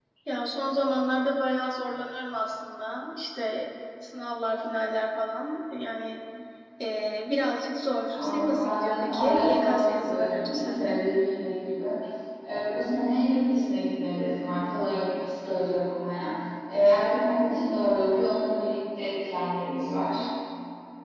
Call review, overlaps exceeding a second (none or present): present